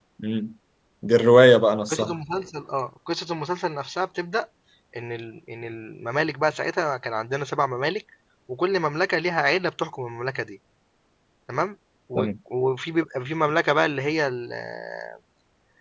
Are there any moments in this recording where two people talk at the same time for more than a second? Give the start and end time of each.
none

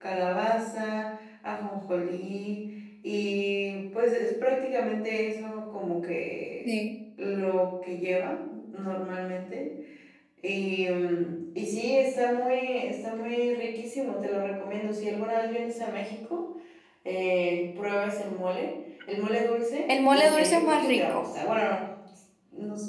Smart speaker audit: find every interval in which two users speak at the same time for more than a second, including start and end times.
19.9-21.2

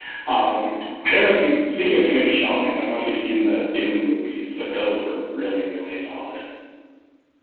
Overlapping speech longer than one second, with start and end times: none

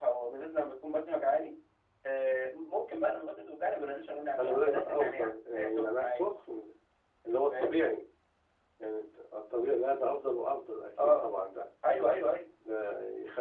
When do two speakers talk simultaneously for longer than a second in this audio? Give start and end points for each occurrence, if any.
4.4-6.3

